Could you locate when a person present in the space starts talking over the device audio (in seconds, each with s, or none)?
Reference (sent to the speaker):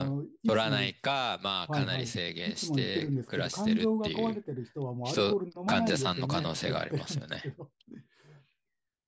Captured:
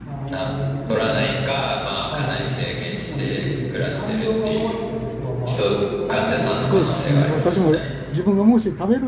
6.7 s